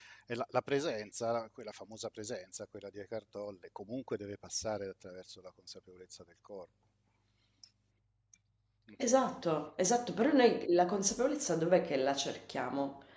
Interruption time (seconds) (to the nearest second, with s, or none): none